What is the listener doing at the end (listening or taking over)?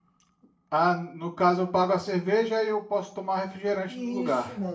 taking over